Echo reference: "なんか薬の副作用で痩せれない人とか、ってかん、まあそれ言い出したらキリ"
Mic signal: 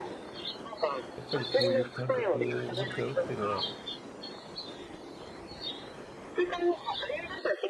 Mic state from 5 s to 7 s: echo only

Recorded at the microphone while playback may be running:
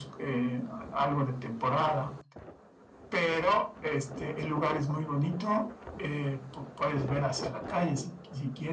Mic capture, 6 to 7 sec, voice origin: echo only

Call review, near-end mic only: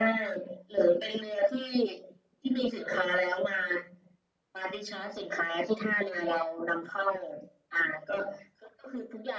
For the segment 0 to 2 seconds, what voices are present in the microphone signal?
echo only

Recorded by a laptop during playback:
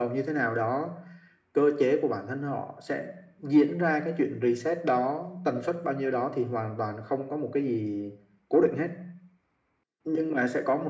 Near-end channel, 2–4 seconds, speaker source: echo only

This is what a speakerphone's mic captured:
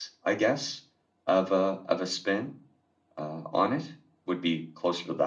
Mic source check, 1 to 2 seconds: user only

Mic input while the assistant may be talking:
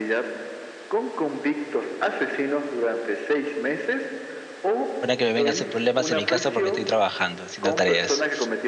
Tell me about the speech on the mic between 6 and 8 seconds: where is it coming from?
both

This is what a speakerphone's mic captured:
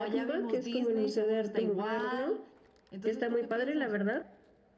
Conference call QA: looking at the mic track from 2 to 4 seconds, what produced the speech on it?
echo only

